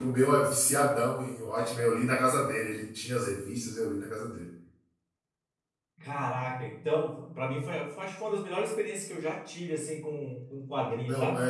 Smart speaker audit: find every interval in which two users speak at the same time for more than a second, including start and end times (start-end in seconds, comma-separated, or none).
none